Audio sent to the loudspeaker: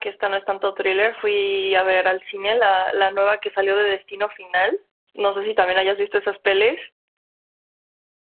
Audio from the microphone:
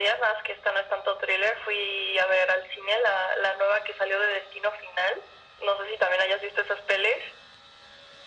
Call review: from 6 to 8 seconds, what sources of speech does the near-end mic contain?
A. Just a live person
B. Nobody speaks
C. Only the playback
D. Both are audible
C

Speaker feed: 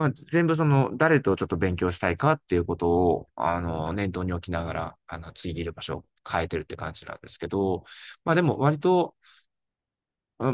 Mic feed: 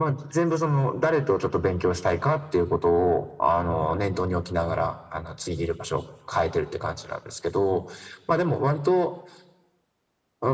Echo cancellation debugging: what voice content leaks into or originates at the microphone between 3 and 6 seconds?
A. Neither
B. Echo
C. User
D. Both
B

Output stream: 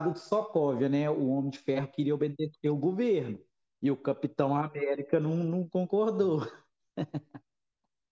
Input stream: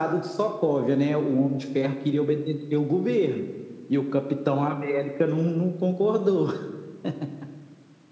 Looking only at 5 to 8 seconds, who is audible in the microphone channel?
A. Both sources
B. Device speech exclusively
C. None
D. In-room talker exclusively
B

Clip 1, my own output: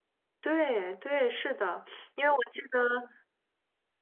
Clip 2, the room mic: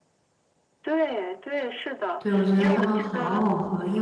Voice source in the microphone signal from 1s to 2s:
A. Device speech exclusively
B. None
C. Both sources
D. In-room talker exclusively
A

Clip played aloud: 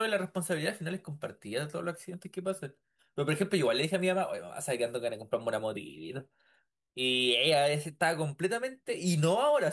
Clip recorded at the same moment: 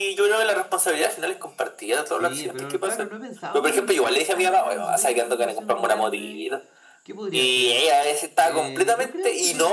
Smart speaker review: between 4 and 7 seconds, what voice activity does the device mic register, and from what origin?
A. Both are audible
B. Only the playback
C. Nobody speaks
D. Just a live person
A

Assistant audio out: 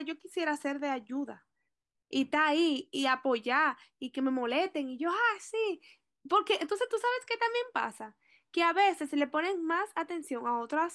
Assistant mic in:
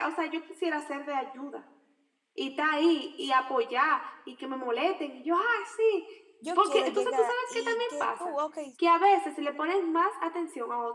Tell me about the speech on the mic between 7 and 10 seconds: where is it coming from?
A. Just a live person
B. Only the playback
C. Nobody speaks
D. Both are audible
D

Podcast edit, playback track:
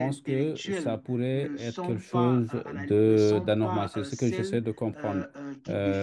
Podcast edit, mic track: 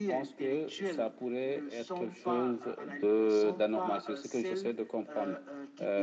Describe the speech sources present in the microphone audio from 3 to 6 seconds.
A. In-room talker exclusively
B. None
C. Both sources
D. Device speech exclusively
D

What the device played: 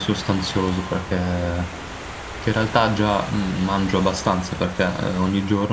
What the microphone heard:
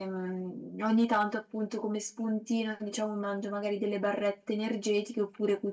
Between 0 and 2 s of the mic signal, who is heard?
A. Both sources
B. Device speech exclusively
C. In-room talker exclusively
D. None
C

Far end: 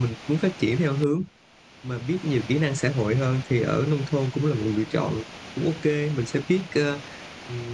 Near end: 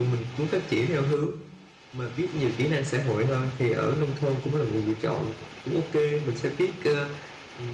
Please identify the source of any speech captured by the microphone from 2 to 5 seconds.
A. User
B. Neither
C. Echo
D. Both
C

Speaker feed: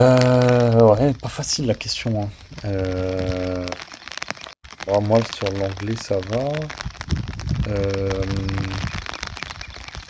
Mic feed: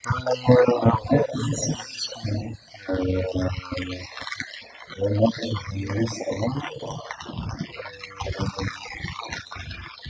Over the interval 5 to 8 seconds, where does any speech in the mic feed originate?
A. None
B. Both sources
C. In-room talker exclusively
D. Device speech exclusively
D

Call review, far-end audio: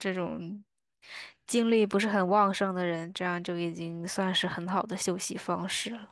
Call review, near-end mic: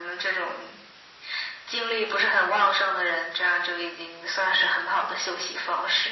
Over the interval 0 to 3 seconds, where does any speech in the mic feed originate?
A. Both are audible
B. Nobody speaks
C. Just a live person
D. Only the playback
D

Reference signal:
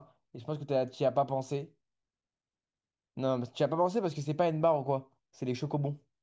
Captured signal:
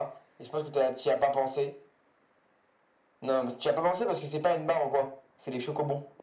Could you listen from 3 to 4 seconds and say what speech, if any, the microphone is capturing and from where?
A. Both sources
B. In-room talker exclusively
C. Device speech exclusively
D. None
C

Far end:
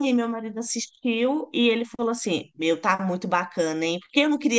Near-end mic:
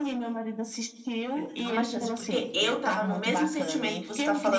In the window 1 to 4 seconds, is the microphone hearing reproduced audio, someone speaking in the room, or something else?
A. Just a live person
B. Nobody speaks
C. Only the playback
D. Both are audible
D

